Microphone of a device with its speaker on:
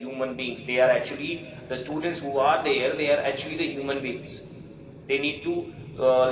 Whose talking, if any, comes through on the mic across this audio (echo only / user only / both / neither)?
echo only